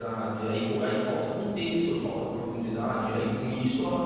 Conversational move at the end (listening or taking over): listening